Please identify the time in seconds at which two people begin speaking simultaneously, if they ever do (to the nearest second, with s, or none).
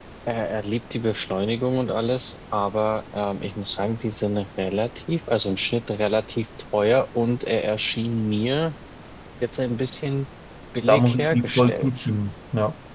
11 s